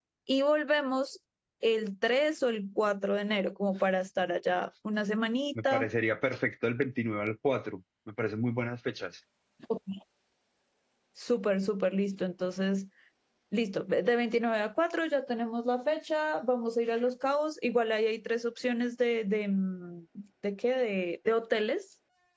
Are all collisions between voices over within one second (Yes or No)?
Yes